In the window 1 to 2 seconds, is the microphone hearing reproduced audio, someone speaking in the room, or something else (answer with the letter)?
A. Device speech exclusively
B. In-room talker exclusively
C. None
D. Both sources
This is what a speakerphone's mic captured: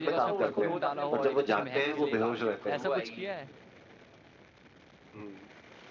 D